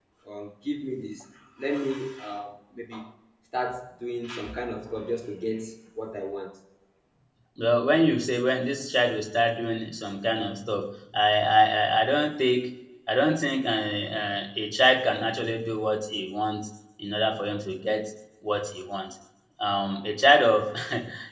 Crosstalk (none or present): none